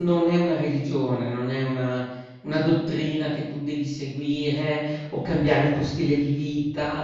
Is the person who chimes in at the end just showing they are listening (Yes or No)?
Yes